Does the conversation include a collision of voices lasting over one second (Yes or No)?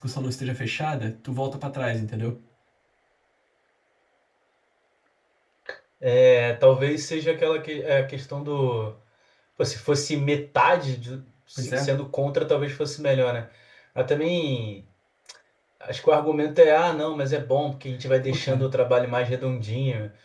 No